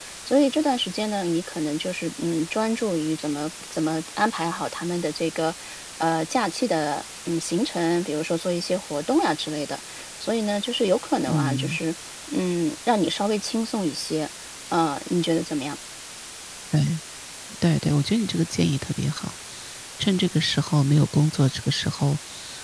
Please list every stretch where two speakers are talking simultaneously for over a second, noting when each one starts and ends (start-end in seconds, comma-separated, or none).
none